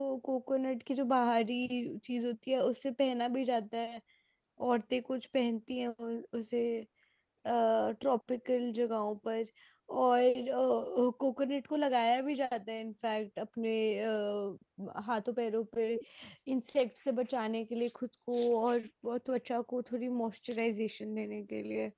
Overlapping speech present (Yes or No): No